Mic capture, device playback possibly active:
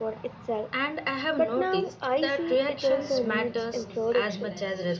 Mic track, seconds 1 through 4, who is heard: both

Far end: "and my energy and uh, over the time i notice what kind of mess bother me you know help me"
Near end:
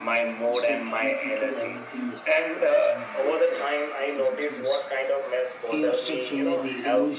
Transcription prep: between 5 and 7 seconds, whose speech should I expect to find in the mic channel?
both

